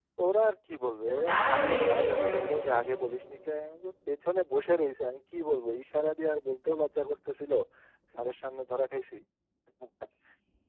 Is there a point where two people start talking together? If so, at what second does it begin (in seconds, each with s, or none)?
1.3 s